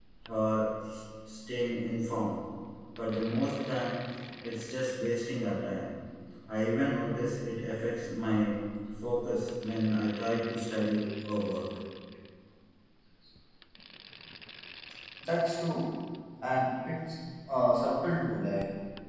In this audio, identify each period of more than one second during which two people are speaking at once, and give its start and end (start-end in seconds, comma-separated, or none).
none